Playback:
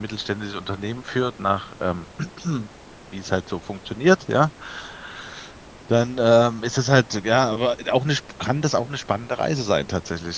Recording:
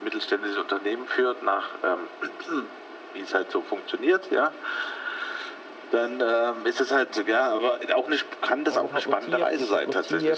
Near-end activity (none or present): present